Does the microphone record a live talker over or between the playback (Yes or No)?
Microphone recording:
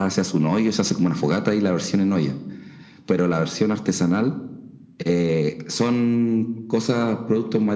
No